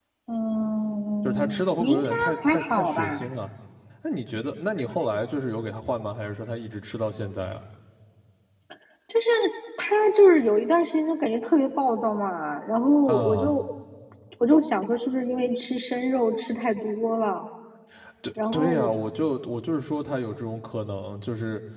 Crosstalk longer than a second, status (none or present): present